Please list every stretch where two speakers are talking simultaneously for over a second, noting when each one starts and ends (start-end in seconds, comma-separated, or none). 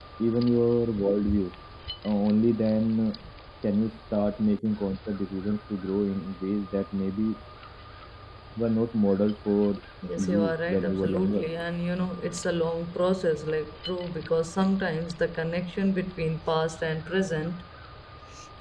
10.2-11.5